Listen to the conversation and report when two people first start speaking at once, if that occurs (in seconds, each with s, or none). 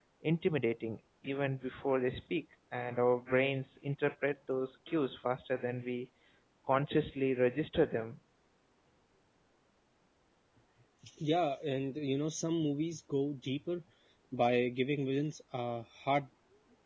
none